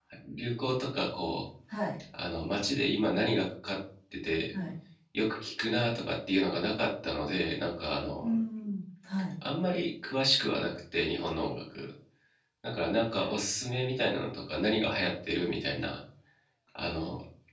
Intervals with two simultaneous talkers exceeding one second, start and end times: none

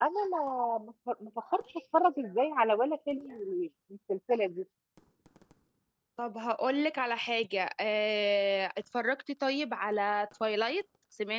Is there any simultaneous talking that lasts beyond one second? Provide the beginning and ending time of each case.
none

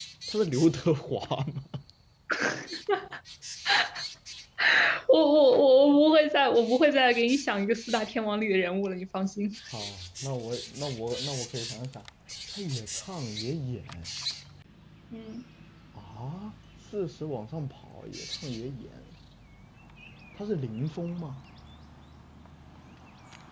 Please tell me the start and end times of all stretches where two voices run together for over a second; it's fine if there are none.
none

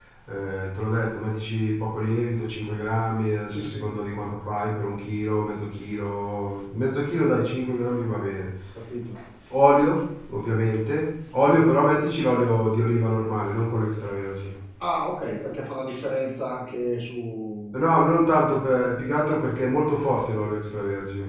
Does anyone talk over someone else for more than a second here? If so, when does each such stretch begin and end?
none

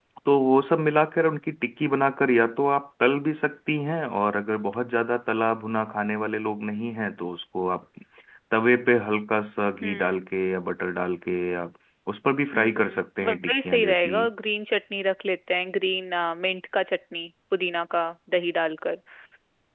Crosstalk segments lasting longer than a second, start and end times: 12.5-14.2

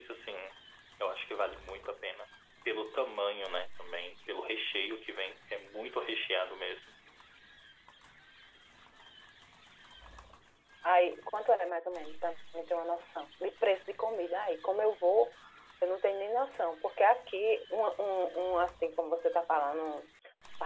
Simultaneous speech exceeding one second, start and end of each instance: none

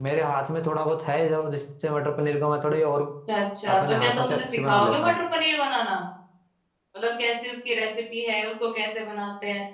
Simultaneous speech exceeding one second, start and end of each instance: 3.8-5.2

